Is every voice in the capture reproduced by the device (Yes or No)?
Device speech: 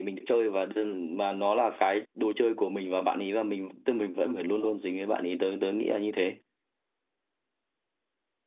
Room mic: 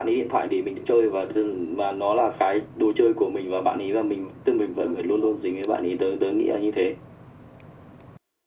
Yes